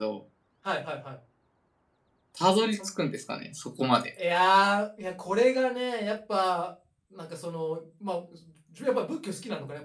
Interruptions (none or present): none